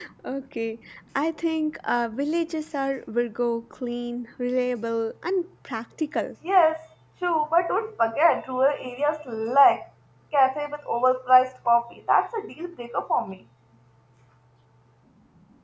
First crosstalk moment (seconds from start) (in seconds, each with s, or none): none